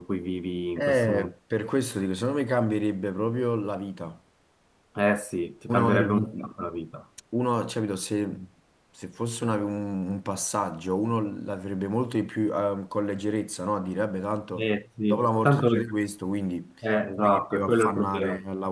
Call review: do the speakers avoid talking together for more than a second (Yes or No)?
No